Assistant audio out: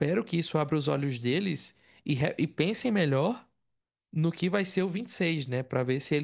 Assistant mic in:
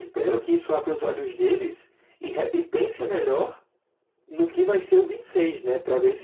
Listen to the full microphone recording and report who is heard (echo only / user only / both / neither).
echo only